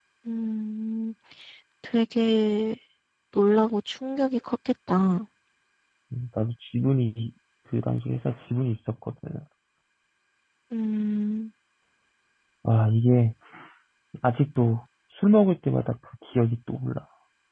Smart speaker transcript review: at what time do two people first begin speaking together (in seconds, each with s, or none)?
none